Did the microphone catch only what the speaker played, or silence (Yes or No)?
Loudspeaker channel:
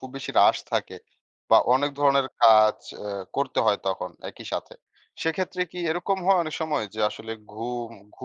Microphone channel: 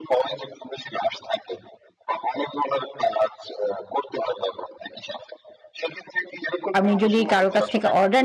No